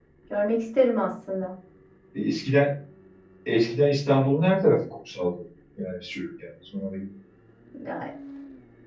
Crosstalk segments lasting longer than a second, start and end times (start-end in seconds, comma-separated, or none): none